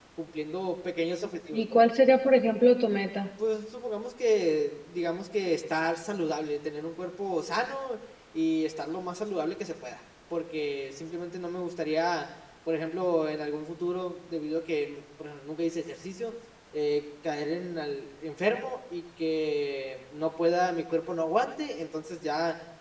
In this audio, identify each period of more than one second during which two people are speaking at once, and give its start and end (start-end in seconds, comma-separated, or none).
none